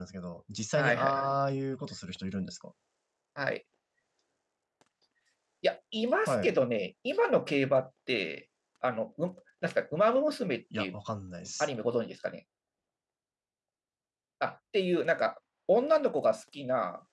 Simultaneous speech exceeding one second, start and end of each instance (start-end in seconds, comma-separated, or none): none